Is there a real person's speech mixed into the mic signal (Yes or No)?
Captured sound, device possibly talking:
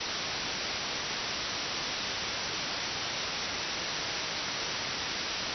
No